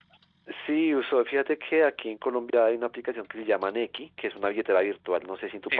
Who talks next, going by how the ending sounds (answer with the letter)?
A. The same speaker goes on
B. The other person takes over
B